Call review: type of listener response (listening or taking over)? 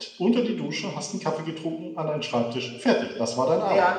taking over